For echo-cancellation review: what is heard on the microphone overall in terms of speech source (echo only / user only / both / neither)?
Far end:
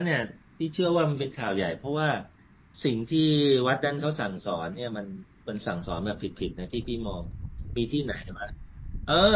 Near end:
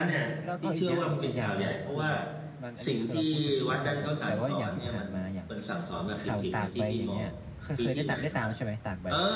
both